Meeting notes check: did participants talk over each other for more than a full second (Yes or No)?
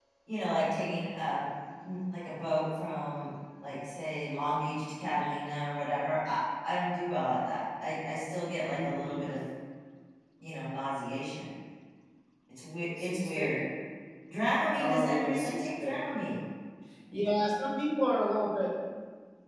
Yes